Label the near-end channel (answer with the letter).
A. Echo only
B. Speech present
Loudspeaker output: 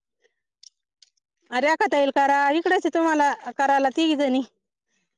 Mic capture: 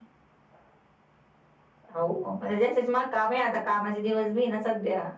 B